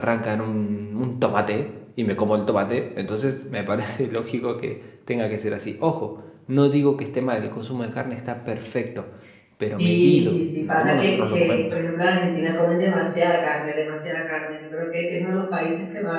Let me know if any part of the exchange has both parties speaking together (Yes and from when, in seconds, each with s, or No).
Yes, from 9.8 s